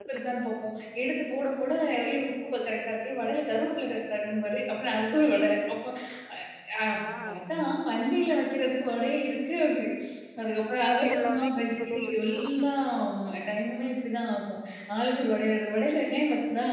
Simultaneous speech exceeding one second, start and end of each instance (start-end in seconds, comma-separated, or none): 11.1-12.7